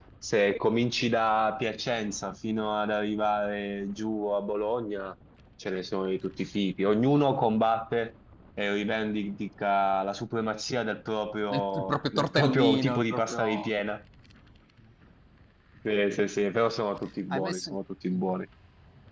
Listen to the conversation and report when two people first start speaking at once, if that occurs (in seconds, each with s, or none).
11.5 s